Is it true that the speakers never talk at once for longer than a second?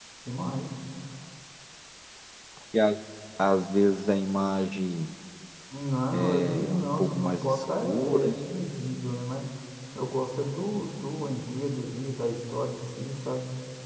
No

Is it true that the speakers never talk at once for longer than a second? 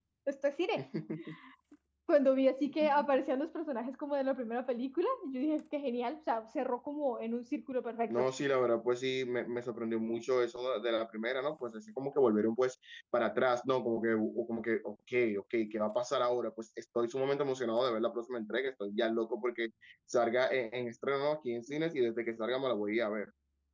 Yes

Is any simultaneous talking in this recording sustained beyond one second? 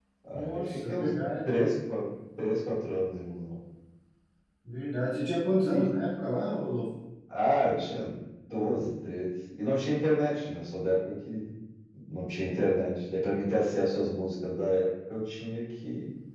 Yes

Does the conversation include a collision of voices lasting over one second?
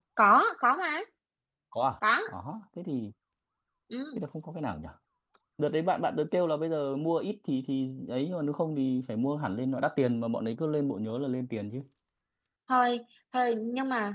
No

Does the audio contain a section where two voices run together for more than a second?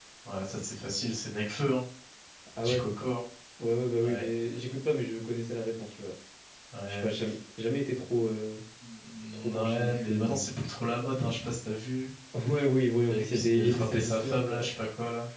Yes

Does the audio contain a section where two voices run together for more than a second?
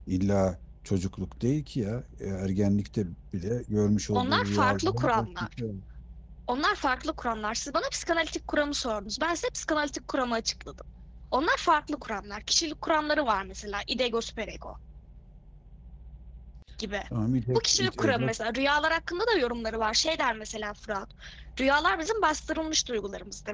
Yes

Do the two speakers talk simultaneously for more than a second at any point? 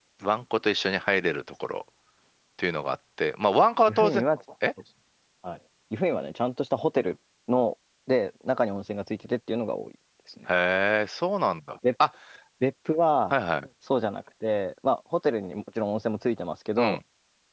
No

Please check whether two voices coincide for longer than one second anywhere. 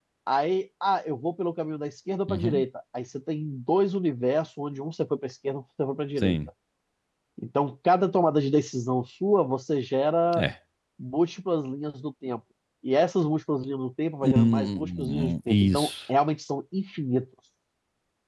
Yes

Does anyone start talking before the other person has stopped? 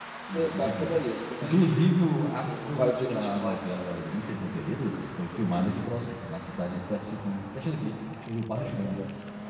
Yes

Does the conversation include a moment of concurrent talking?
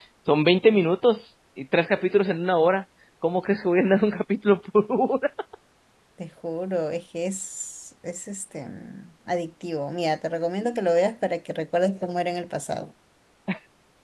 No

